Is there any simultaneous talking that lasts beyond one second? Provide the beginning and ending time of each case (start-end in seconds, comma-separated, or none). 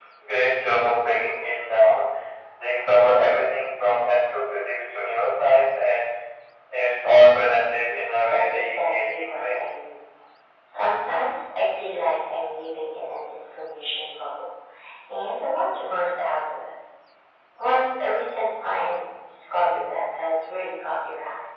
8.3-9.6